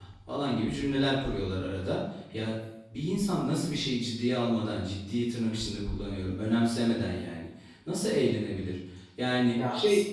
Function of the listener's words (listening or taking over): taking over